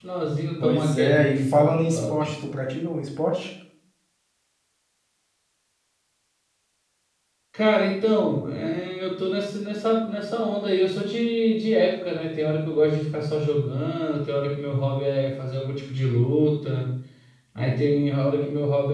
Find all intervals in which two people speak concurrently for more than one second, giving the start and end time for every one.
0.6-2.4

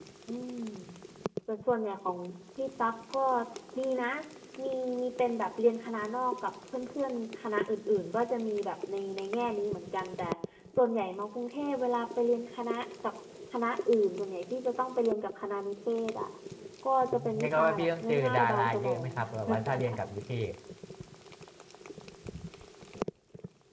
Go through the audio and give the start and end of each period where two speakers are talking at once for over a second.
17.4-19.1

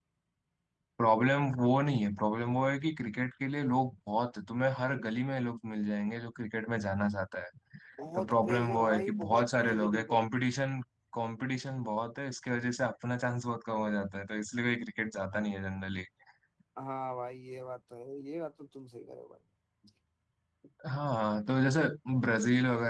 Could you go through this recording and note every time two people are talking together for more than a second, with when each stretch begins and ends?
8.2-10.2

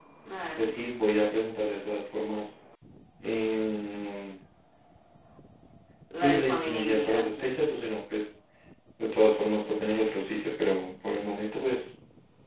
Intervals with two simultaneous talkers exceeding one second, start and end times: 6.1-7.4

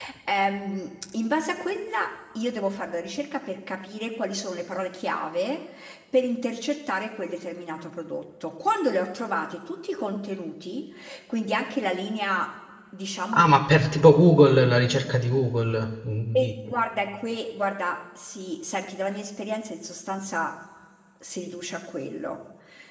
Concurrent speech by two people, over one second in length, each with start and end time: none

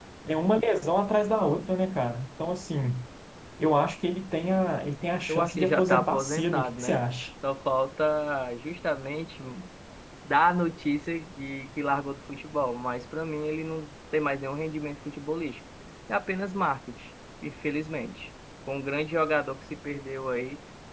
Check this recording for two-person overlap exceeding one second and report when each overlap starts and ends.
5.3-7.0

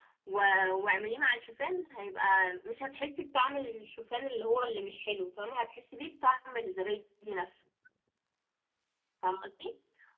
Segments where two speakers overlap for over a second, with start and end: none

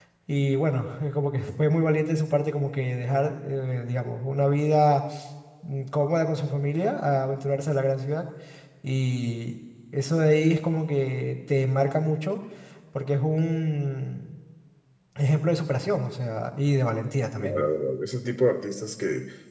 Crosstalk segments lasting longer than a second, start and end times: none

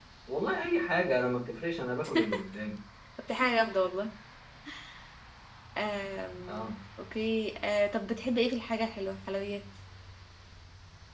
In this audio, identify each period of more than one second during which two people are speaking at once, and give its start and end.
none

